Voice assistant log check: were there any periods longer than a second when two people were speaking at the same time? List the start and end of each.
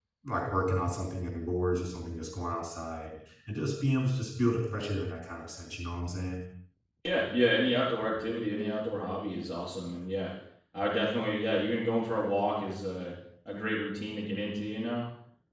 none

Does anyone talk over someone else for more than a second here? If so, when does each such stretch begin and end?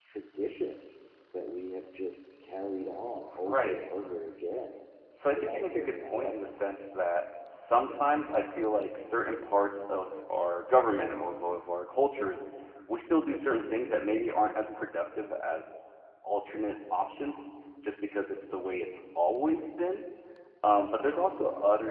5.3-6.7

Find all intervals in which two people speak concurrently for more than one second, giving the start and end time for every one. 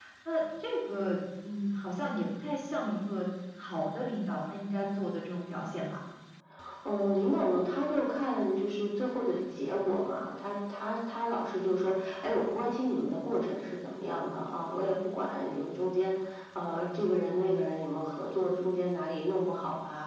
none

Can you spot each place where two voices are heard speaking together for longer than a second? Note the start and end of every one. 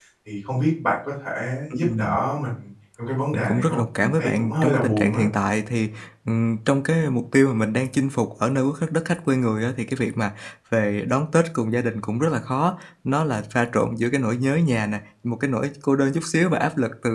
3.3-5.2

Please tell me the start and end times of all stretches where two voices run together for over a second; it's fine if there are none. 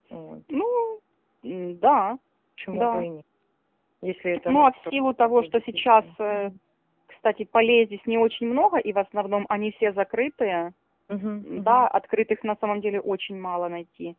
4.5-6.5

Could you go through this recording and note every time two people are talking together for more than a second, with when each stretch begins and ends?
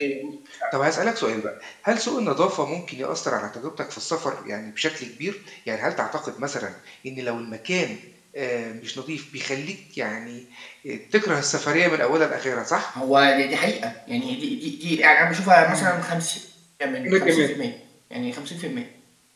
none

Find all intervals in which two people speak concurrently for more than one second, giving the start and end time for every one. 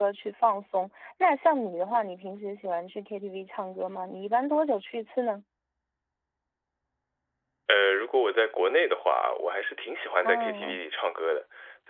none

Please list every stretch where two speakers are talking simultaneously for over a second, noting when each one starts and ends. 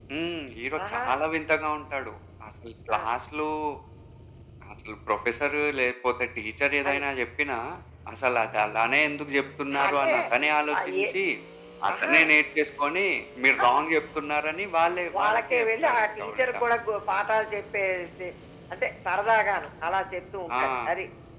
15.2-16.6

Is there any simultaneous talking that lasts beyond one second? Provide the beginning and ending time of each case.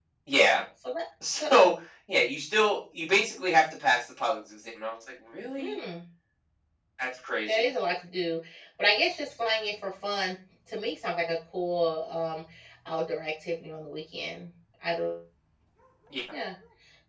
none

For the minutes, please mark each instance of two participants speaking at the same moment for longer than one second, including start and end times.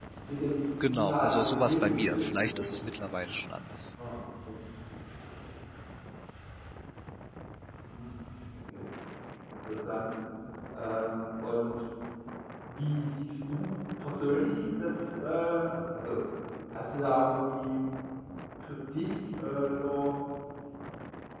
0.9-2.6

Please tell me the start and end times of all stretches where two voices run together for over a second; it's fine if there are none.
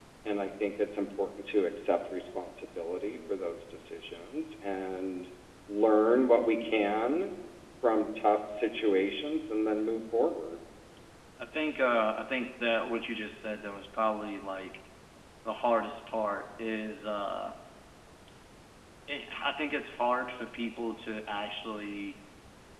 none

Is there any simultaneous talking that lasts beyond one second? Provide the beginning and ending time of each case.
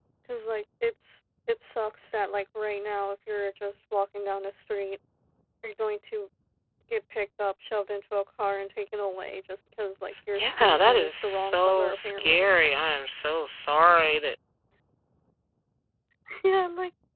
10.4-12.5

